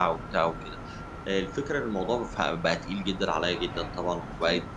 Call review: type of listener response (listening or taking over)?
listening